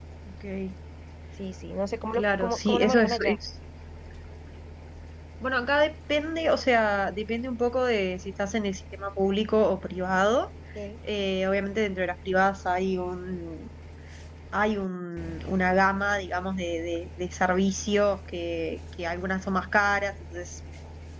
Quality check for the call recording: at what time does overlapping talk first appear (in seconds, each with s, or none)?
2.1 s